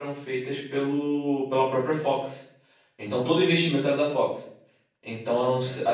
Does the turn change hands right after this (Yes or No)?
No